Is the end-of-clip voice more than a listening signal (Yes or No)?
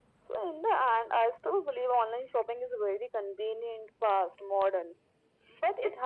No